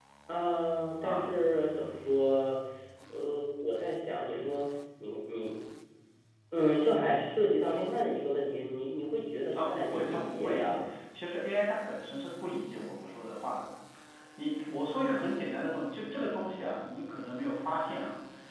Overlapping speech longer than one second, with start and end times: 9.5-10.9

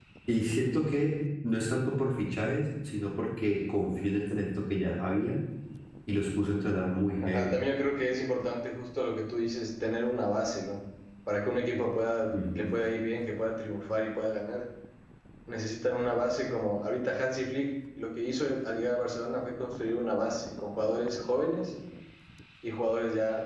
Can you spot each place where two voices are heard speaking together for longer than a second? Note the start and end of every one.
none

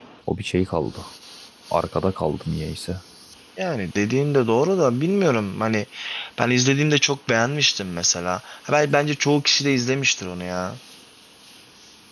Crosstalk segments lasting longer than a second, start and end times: none

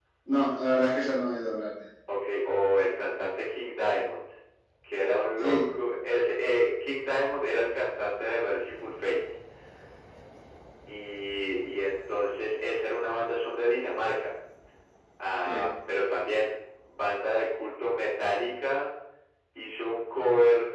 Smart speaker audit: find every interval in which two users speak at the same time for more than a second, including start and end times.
none

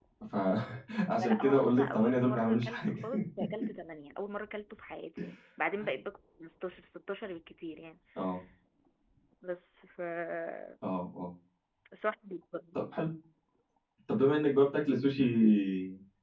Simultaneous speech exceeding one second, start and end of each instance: 1.1-2.9

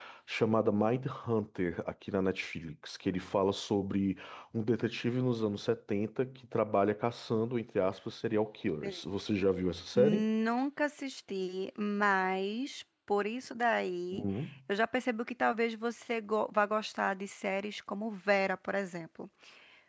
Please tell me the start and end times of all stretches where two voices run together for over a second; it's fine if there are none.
none

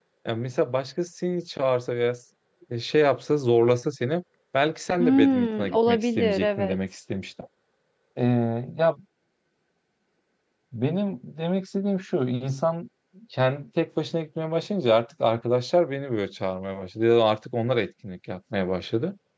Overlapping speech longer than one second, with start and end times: 5.0-6.8

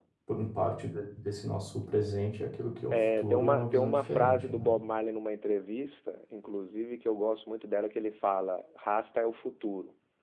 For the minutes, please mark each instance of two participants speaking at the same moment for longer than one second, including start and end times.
2.9-4.7

